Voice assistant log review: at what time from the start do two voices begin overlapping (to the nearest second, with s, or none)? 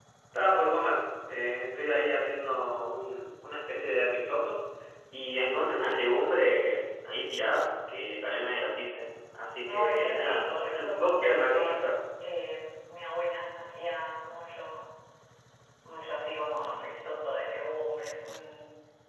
10 s